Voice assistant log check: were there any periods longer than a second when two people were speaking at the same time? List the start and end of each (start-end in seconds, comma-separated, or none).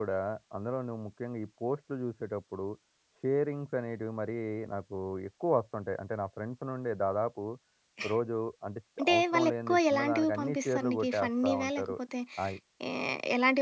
9.0-12.0